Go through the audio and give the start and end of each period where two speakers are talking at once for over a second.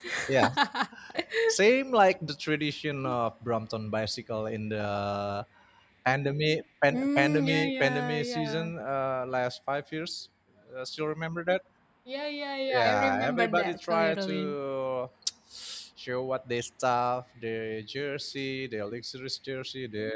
6.9-8.7, 12.7-14.6

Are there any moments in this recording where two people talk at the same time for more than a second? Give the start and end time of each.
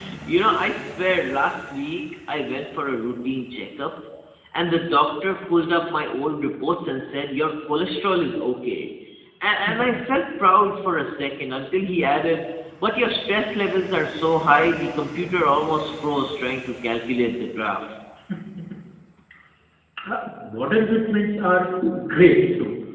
none

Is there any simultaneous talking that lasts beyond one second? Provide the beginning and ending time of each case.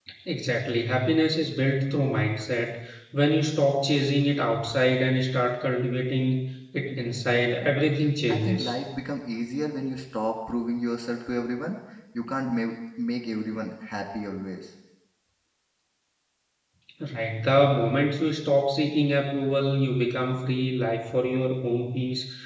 none

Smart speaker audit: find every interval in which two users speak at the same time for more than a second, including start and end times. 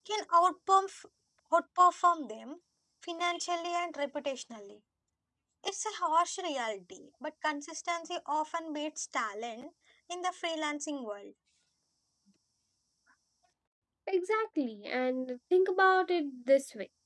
none

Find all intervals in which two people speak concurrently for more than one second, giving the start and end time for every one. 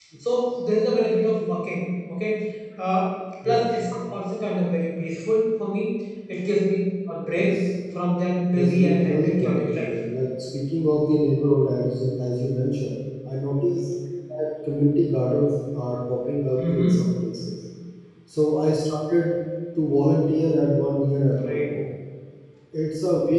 8.5-9.9

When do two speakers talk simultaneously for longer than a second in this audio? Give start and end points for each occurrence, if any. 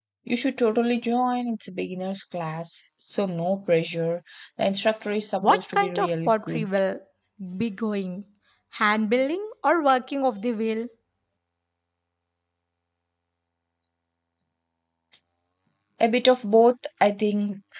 5.4-6.7

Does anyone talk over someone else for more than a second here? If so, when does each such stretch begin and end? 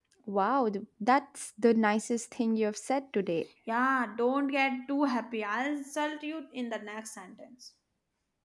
none

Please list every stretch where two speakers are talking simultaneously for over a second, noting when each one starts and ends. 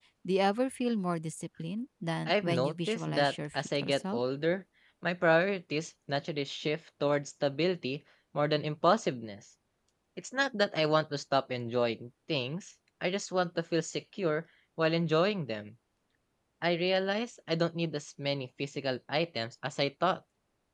2.3-4.2

